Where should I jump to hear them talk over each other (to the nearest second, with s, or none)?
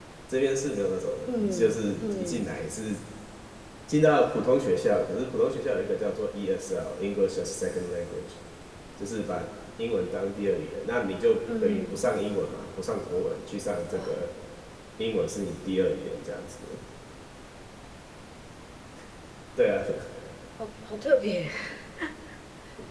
1 s